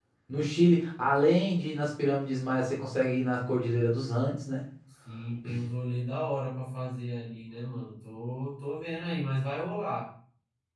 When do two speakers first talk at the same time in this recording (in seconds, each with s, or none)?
none